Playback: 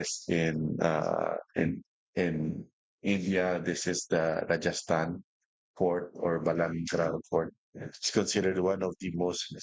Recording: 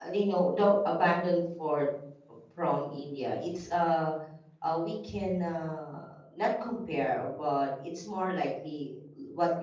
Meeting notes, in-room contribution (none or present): present